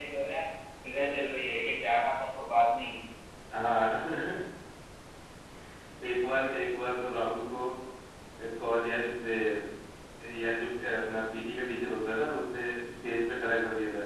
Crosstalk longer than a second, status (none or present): none